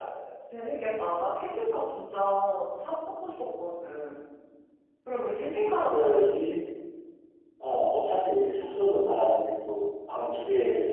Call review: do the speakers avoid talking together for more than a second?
Yes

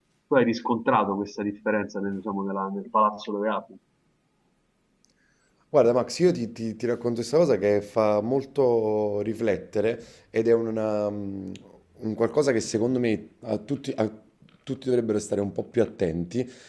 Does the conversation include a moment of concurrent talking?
No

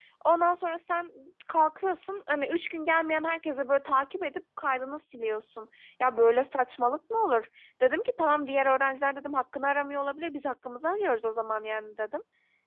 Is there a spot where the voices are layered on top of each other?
No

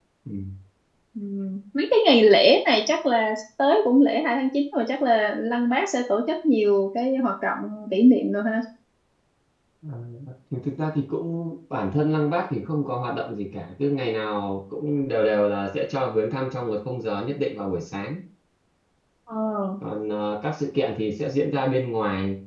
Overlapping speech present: No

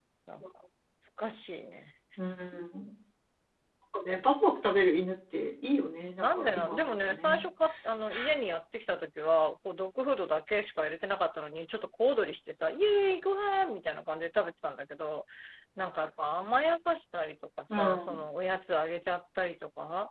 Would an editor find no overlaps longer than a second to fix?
No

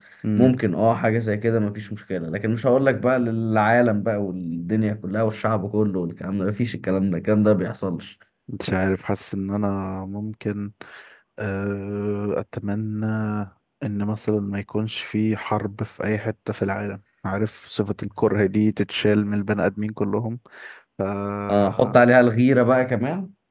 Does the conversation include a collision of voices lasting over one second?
No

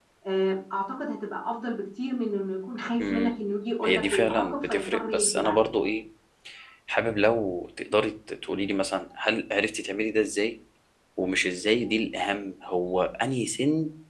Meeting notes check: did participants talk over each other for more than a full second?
Yes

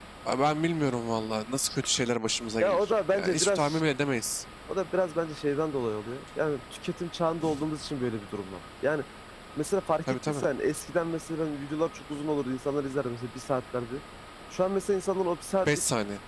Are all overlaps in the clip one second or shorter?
No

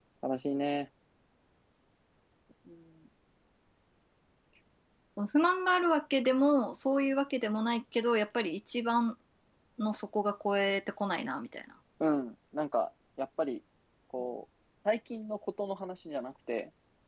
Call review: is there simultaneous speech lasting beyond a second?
No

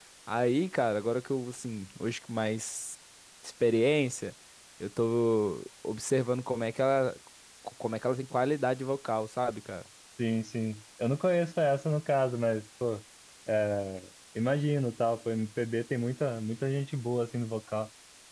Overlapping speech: No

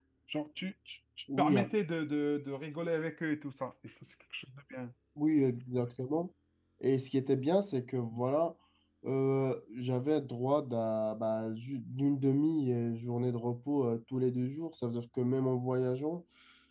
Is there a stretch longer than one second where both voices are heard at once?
No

